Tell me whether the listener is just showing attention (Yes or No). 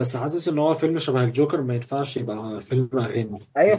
No